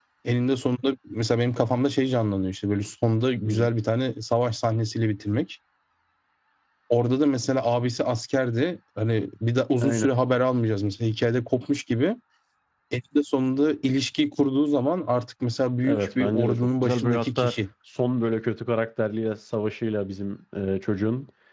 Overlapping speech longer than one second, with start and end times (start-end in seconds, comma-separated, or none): 15.8-17.6